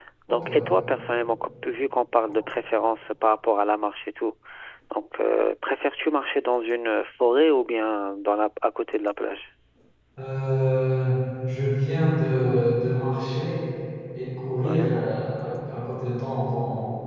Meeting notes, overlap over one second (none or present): none